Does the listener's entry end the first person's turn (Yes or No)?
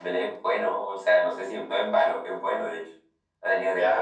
No